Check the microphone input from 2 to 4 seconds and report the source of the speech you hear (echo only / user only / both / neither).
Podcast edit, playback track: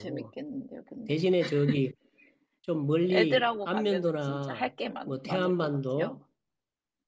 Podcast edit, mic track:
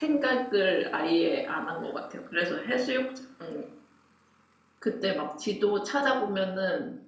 user only